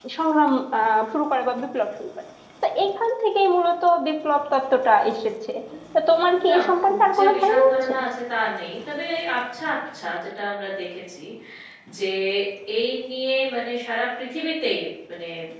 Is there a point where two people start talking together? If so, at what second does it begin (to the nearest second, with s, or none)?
6 s